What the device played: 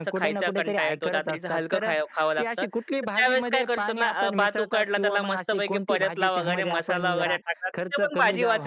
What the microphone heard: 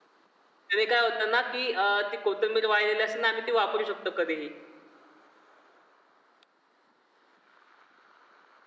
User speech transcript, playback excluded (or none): त्याने काय होतं ना की अ, ती कोथिंबीर वाळलेली असेल ना आम्ही ती वापरू शकतो कधीही.